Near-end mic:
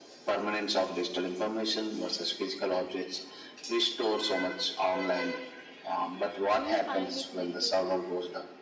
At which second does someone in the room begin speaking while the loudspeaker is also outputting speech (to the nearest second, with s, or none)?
7 s